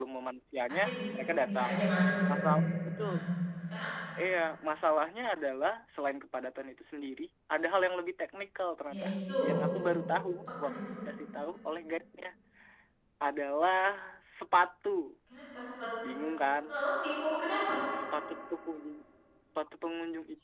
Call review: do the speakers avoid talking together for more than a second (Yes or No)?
Yes